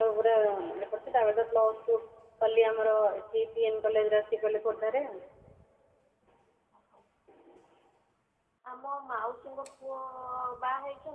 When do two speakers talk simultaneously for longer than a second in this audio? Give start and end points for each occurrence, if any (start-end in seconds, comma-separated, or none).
none